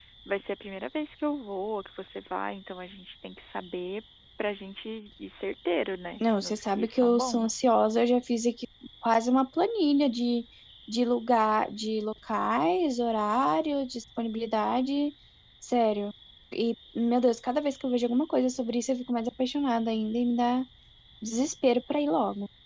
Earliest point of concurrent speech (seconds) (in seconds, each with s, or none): 6.2 s